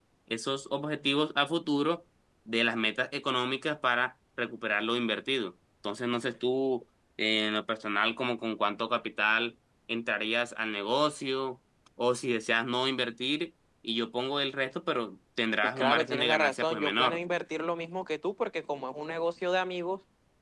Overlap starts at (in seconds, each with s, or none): 15.8 s